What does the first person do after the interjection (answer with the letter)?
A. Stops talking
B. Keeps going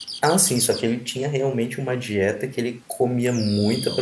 B